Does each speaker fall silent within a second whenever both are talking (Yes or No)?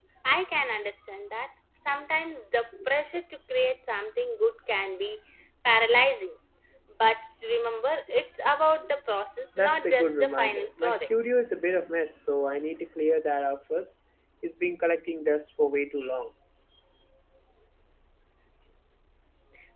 No